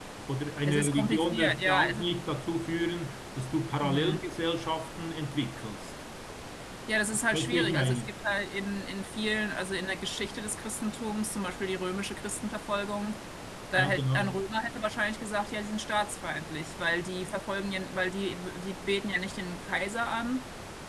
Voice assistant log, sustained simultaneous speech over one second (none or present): present